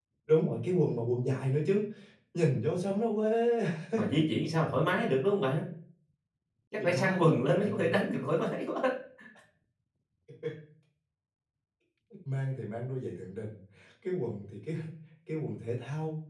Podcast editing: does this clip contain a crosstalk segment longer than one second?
Yes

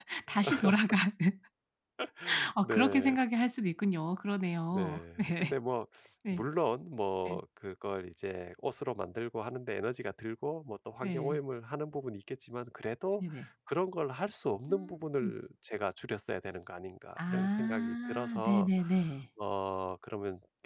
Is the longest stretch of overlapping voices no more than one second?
No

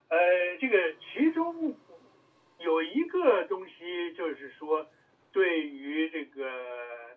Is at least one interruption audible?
No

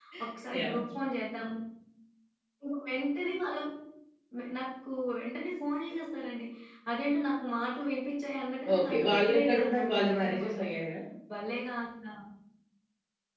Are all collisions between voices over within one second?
No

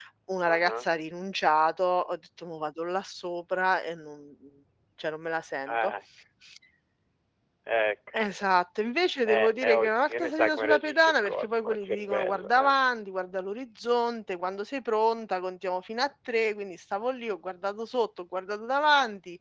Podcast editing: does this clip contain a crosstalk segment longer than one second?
Yes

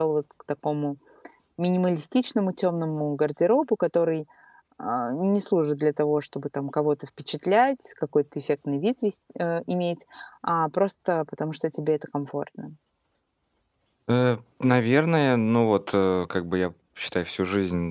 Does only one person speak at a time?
Yes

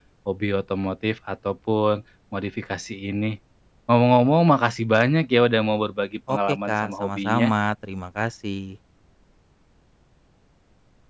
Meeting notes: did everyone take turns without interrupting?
No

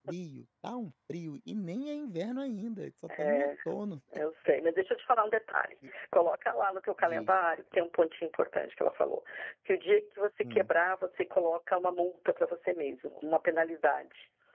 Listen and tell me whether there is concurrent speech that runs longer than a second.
No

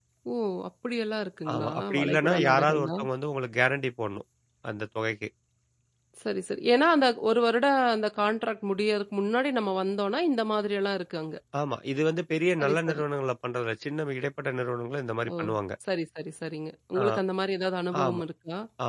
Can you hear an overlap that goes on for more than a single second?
Yes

